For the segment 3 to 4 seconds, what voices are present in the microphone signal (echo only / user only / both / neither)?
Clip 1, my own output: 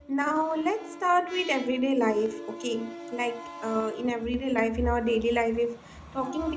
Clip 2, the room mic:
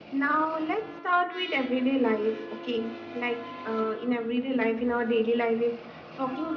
echo only